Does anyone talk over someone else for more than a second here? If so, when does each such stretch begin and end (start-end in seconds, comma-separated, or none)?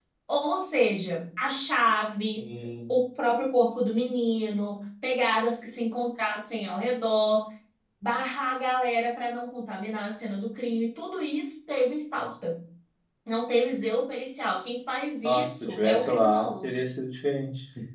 15.2-16.7